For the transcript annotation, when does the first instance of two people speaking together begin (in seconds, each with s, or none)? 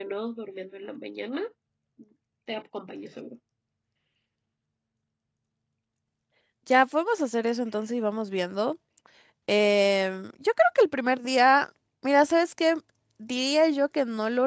none